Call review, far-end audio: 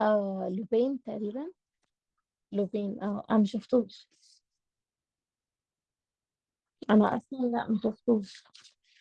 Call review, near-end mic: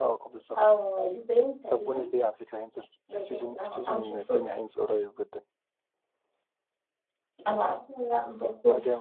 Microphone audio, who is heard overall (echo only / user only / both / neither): both